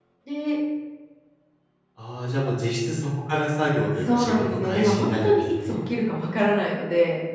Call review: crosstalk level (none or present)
present